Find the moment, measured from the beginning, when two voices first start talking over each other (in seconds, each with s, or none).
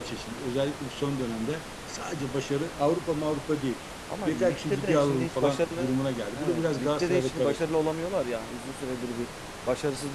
4.2 s